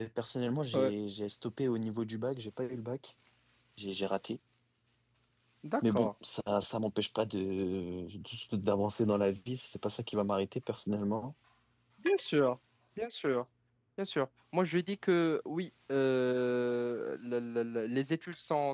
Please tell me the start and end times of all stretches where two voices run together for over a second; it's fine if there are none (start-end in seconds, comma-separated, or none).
none